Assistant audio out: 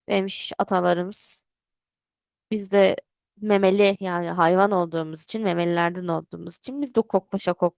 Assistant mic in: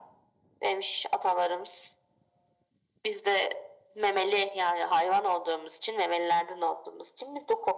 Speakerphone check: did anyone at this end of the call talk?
No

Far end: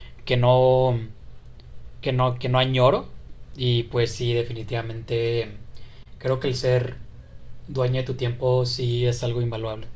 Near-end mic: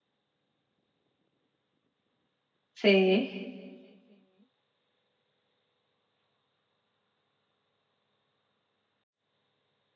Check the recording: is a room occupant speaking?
Yes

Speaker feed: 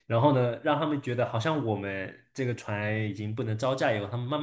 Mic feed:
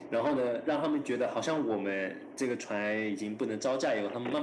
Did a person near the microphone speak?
No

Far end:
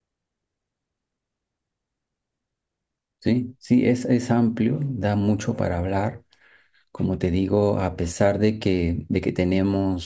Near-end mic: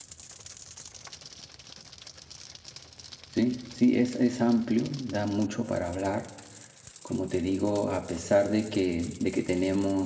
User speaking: No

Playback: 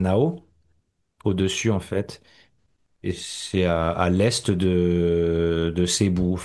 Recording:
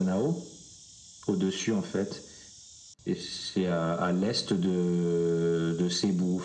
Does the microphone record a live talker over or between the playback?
No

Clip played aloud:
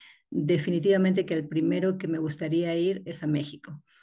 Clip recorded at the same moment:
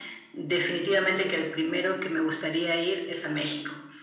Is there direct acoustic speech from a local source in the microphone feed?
No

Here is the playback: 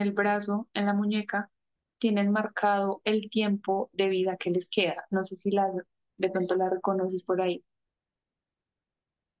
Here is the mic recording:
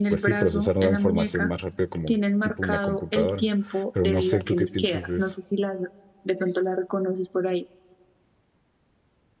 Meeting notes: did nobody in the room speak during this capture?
No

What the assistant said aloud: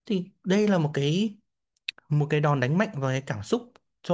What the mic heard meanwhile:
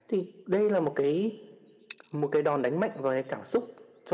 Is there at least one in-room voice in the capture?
No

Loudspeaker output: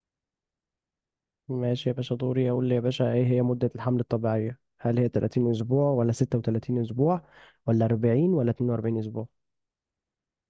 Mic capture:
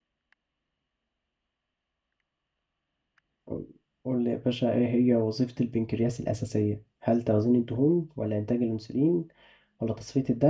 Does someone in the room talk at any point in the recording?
Yes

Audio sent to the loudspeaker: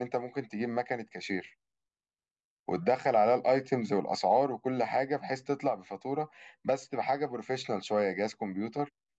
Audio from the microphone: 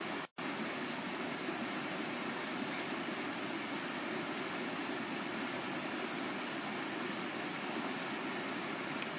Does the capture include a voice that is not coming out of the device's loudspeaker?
No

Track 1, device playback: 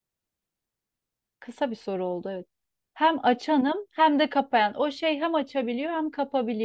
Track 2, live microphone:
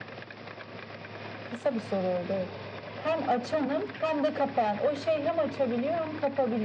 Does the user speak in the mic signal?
No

